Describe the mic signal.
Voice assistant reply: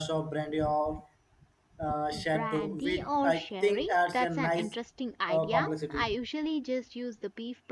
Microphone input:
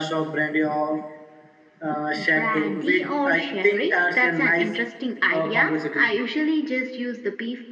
echo only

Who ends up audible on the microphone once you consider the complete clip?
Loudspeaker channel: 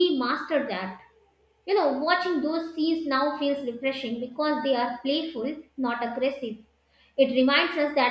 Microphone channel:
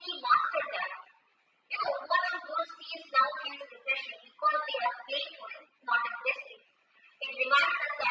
echo only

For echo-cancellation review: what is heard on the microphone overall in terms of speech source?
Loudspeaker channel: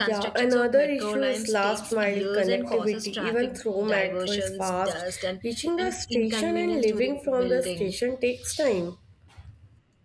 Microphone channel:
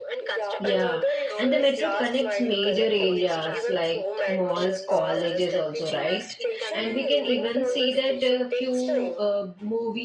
both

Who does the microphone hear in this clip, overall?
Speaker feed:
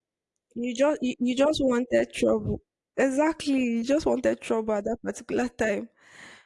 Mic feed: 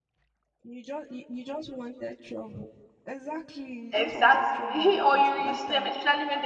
both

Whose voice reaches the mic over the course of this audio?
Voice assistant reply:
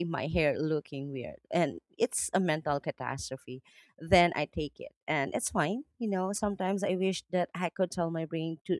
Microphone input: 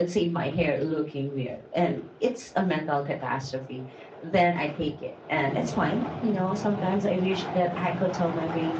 echo only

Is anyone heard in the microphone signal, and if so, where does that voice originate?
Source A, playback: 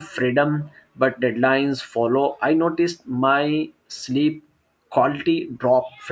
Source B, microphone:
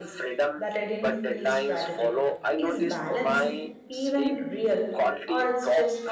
both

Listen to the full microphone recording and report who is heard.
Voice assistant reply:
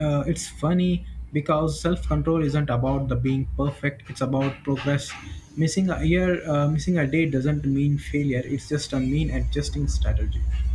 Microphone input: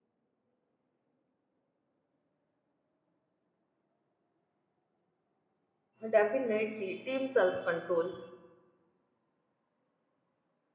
user only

